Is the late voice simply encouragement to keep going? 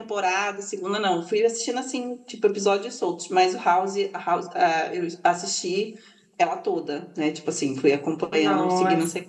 No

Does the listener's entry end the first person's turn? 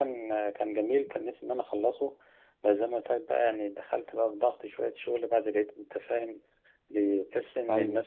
No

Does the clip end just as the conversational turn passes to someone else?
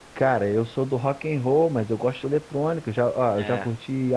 No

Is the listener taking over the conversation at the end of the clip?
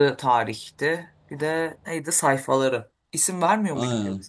Yes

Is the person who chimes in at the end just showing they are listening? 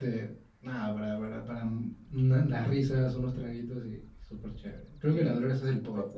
No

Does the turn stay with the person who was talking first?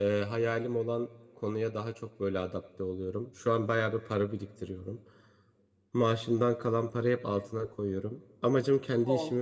Yes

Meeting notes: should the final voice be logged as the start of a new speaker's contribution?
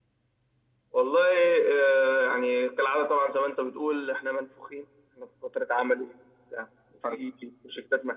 No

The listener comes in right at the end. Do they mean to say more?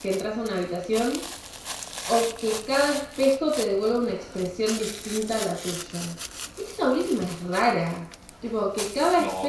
Yes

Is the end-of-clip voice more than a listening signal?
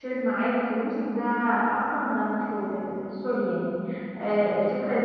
No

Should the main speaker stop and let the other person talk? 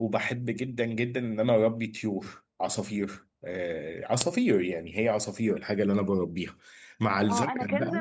Yes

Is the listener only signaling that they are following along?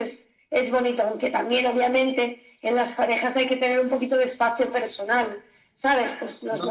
Yes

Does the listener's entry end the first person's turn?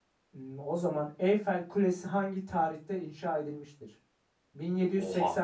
No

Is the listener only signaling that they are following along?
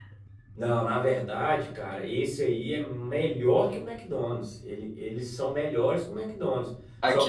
No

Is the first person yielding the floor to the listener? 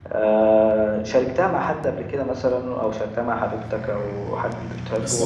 Yes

